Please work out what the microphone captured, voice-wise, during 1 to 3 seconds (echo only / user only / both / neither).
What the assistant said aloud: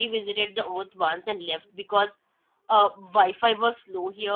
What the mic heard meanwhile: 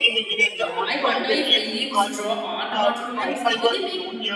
both